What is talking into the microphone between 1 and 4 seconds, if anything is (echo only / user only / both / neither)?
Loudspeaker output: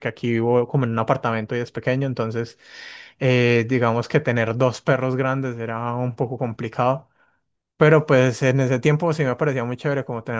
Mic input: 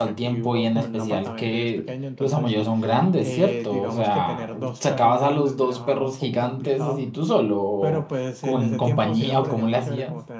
both